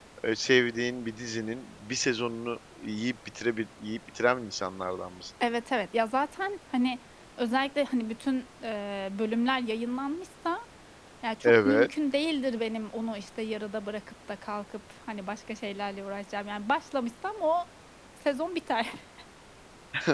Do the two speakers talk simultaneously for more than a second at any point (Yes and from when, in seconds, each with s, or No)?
No